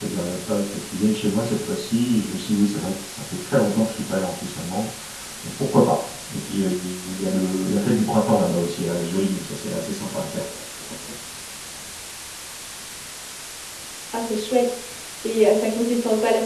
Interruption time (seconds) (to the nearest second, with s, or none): none